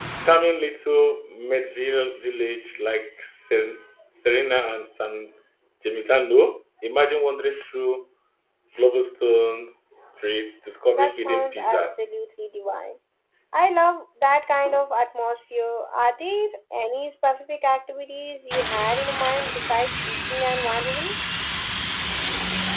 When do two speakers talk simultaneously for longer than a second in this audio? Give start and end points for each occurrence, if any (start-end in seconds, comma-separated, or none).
10.9-12.1